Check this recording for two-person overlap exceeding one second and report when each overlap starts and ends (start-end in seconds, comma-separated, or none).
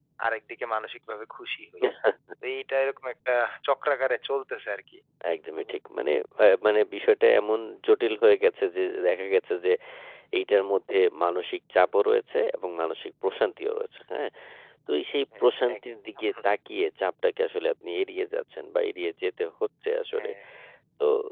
none